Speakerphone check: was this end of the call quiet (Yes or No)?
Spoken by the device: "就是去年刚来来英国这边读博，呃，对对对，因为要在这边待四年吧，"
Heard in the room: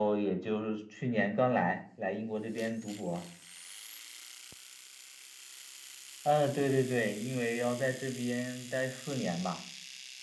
Yes